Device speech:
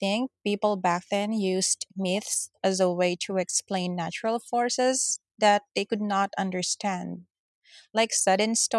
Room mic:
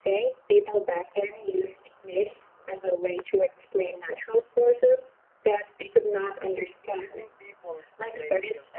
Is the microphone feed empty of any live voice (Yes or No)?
No